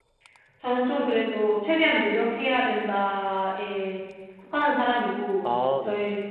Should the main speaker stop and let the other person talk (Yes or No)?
No